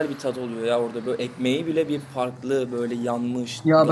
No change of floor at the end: No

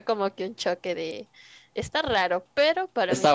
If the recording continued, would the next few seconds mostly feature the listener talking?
No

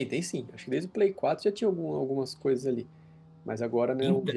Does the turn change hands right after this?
No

